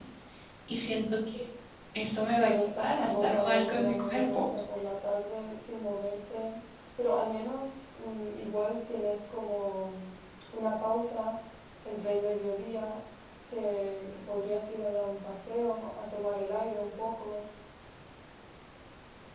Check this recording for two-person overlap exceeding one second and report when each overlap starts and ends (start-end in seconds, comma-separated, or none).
2.3-4.4